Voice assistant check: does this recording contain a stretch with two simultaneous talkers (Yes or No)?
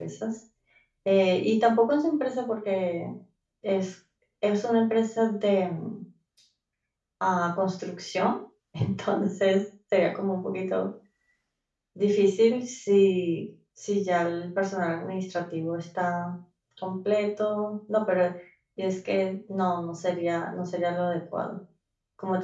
No